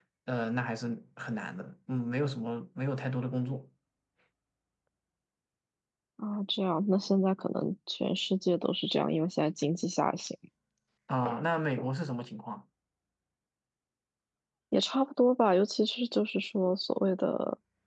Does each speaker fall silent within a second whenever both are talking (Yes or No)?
Yes